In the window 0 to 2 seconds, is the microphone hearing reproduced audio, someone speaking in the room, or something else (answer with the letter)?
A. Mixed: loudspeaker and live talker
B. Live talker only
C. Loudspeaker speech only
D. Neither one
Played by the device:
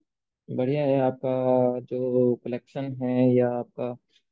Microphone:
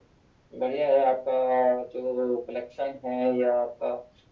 C